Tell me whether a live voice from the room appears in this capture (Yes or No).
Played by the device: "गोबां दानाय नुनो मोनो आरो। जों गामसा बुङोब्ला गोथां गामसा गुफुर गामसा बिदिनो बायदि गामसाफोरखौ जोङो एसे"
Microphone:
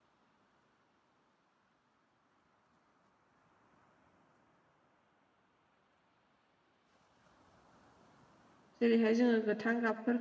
Yes